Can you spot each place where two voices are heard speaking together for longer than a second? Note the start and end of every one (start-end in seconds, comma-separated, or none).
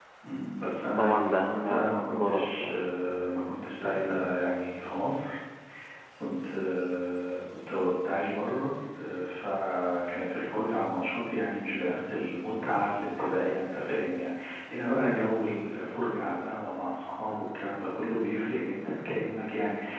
0.9-2.8